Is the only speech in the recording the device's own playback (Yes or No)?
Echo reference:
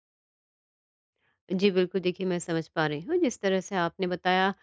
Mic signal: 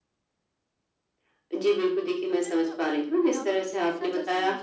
No